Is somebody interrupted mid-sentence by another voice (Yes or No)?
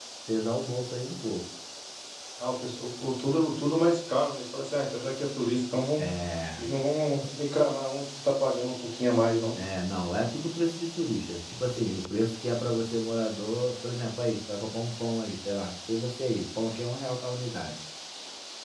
No